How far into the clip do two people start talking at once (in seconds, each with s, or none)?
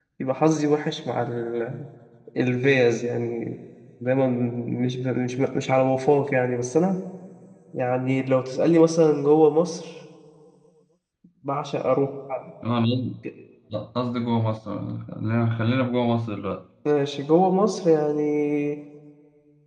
none